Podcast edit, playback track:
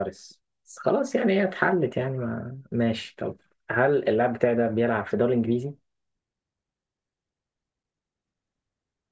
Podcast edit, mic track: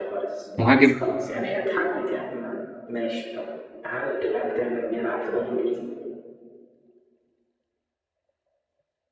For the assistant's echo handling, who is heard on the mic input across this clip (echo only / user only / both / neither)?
both